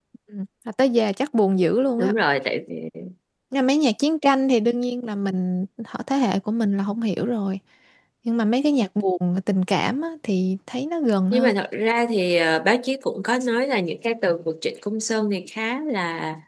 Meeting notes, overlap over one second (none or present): none